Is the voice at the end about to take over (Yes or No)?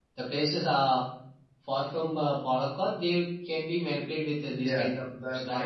Yes